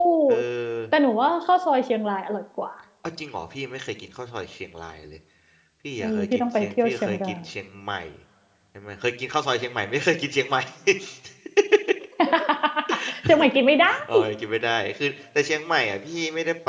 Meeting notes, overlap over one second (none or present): present